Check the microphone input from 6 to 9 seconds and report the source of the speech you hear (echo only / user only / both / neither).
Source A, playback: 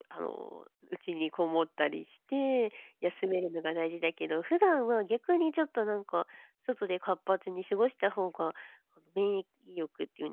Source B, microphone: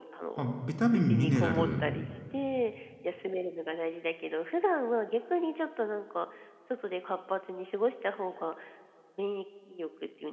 echo only